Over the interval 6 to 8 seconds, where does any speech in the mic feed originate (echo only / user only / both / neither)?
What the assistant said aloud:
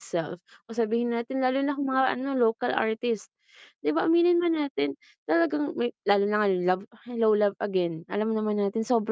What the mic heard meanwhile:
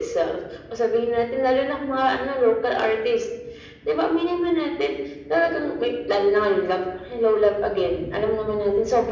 echo only